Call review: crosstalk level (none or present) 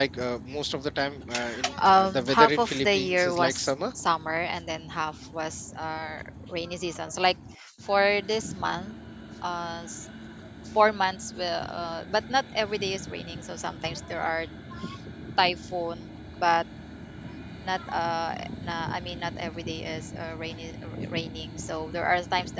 present